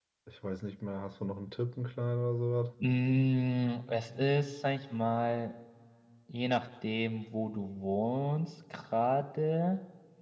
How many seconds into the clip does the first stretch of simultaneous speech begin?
none

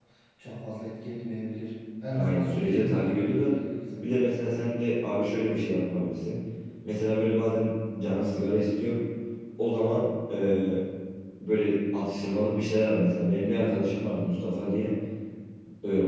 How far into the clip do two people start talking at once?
2.1 s

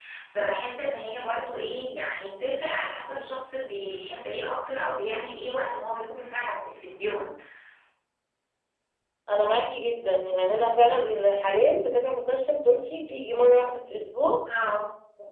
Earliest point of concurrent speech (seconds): none

